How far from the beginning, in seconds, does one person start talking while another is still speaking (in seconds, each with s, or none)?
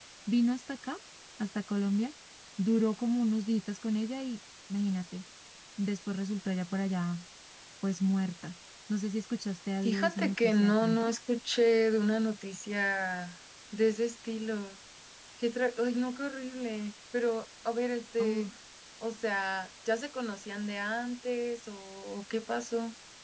9.8 s